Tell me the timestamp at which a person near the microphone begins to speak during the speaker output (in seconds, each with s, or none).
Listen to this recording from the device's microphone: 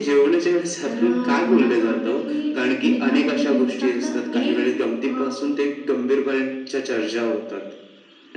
0.8 s